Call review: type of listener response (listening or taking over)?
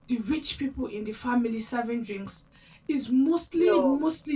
listening